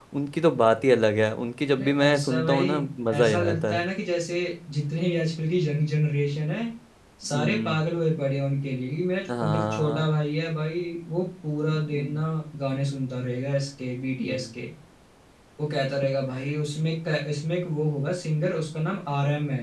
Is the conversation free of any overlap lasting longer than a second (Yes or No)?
No